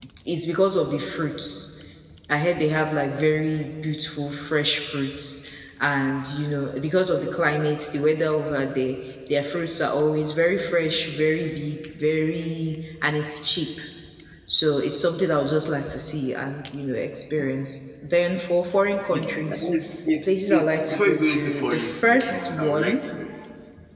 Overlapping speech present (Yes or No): Yes